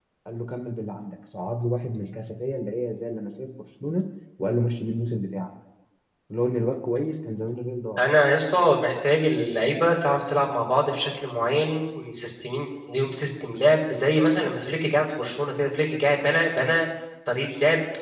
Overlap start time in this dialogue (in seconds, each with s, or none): none